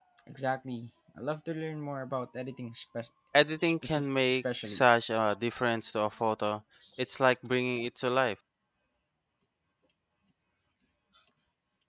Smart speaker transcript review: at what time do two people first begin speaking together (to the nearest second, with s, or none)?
4 s